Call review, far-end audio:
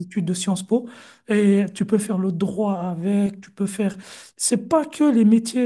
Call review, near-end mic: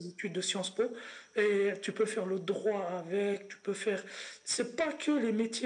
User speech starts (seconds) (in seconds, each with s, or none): none